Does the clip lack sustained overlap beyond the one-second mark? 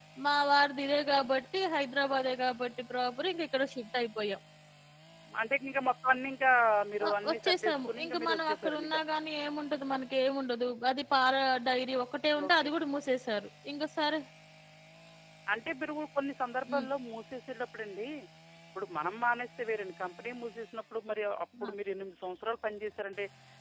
No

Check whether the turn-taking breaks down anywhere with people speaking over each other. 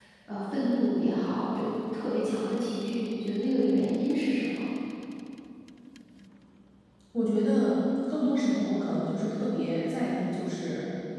No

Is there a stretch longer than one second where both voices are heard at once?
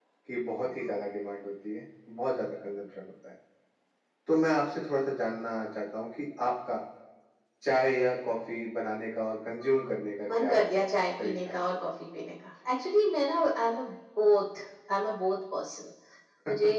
No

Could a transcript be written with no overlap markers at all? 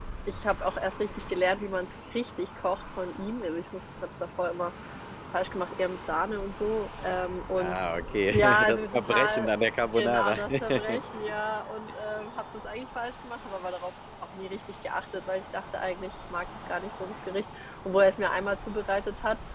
No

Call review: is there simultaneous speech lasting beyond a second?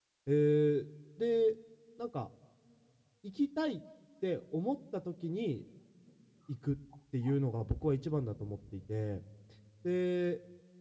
No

